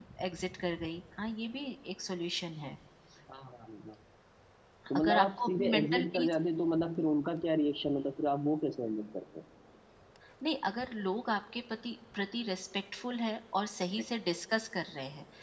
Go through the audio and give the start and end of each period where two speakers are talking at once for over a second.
5.0-6.3

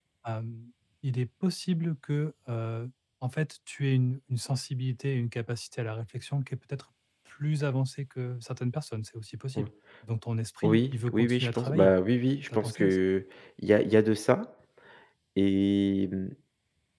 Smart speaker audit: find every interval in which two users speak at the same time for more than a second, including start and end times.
10.6-11.9

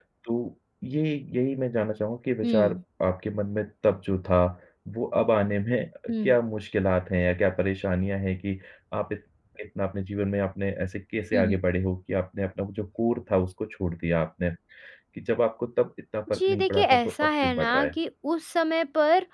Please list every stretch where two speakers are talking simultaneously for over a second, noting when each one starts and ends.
16.3-17.9

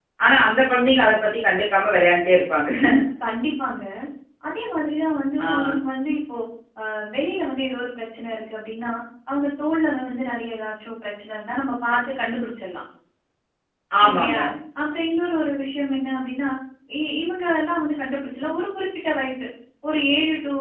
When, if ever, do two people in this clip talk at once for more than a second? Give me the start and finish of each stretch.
none

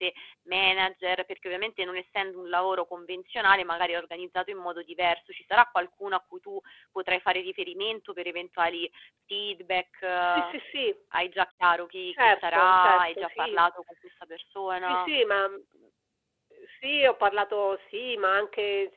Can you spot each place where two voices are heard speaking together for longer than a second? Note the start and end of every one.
12.2-13.5

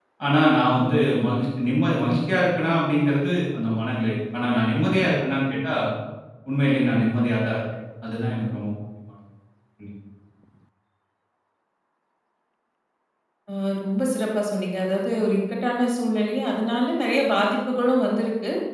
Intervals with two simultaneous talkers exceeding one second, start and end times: none

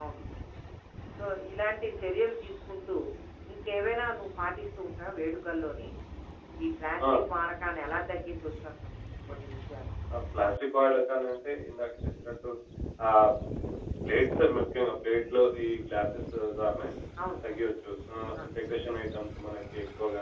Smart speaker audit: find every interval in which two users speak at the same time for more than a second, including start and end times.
none

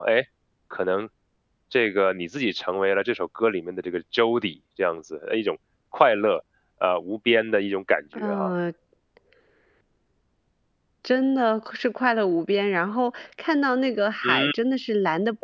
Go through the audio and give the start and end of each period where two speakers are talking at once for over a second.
none

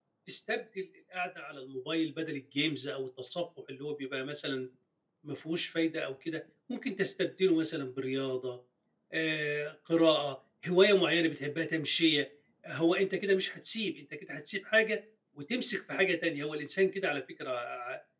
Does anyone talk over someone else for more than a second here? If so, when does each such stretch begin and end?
none

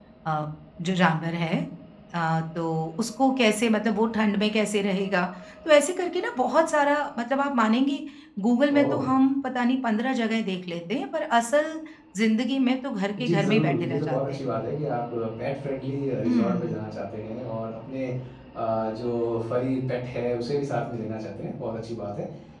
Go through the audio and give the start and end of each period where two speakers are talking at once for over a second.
13.2-14.4

